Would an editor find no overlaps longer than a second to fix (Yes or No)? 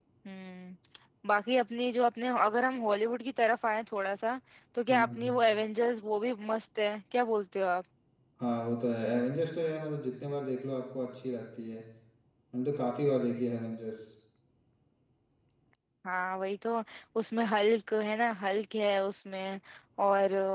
Yes